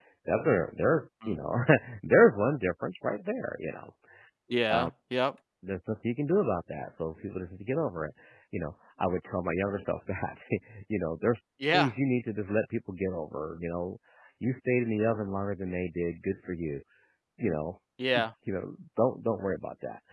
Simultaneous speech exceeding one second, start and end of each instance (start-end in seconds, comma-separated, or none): none